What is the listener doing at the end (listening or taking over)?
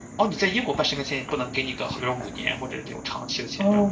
taking over